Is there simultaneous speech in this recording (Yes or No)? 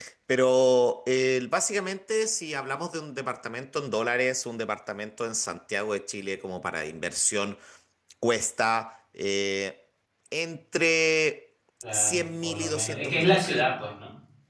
Yes